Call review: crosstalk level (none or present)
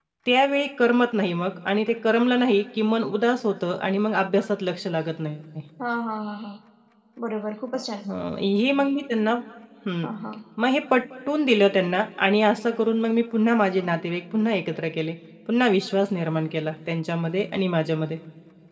none